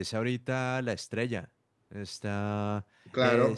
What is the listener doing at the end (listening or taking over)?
taking over